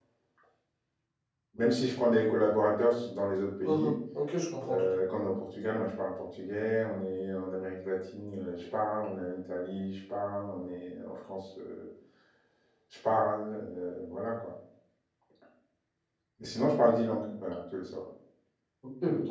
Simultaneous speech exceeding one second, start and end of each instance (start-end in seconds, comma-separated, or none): none